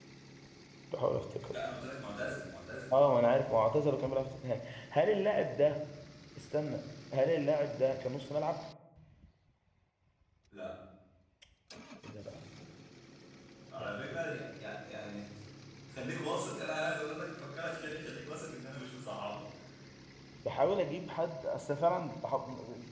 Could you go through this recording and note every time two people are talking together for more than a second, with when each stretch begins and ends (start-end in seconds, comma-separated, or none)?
none